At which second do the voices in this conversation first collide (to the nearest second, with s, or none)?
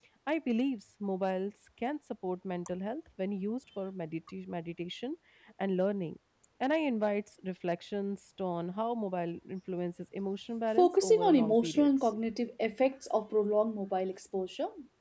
11 s